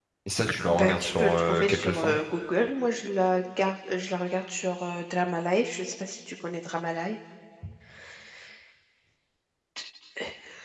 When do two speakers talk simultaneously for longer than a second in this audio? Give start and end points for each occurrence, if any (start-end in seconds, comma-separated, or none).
0.7-2.2